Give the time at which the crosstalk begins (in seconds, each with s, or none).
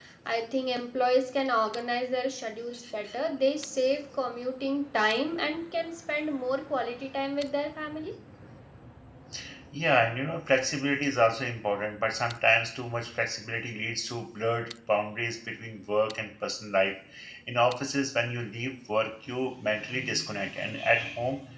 none